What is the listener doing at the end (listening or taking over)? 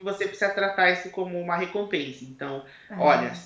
listening